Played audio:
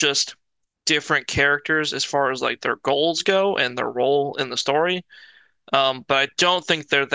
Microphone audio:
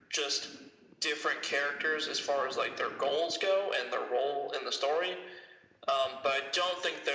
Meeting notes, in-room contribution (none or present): none